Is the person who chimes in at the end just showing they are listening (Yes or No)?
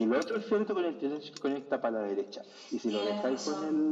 Yes